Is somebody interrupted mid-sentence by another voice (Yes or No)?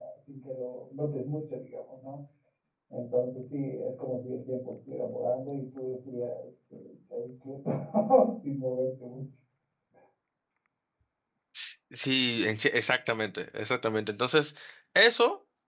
No